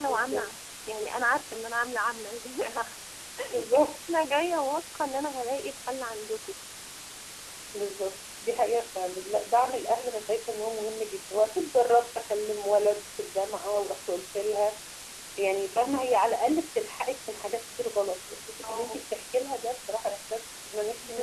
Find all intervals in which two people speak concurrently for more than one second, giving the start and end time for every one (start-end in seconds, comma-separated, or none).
none